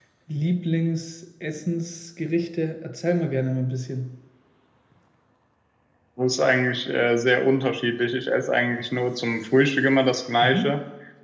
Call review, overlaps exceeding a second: none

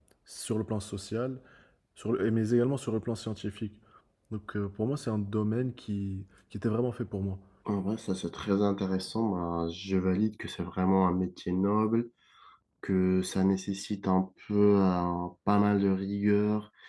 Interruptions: none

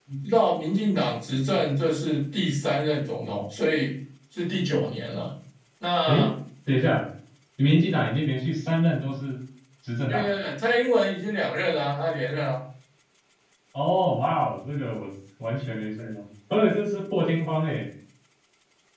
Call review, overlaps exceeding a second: none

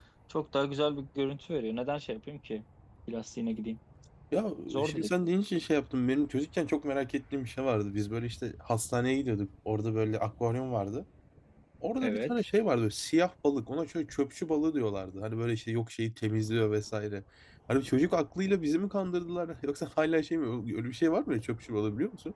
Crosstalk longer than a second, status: none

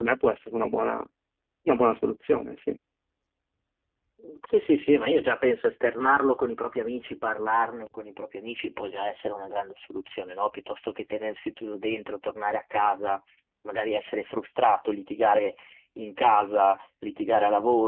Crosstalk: none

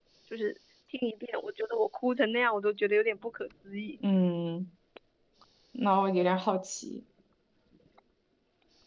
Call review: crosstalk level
none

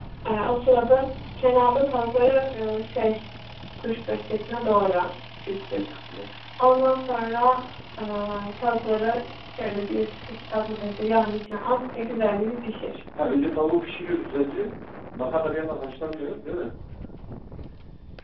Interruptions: none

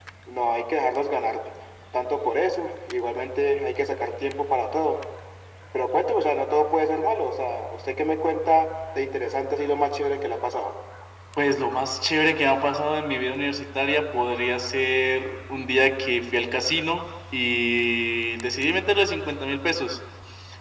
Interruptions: none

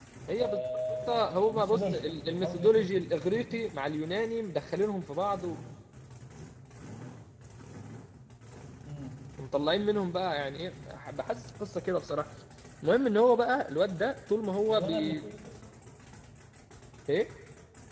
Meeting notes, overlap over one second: present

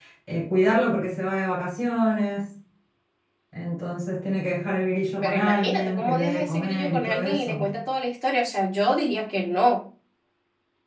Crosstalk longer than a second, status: present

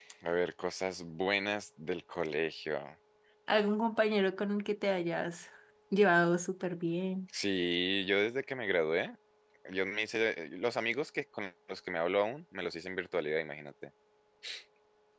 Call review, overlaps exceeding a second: none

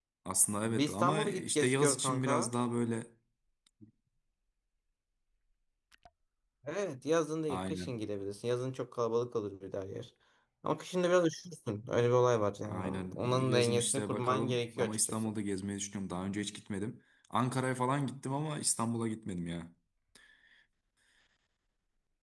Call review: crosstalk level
present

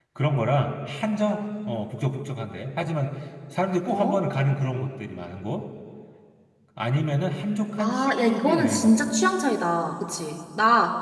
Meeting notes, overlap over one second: present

